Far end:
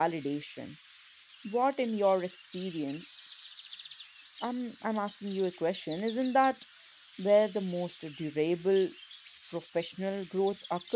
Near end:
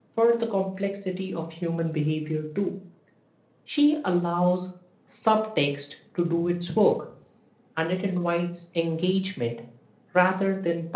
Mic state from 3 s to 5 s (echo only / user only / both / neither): user only